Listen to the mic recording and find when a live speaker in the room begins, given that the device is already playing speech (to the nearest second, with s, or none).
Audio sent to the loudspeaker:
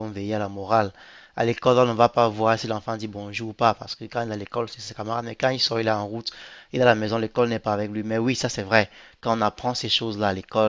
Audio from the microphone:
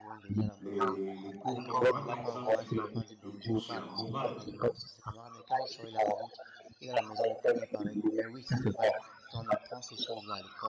1 s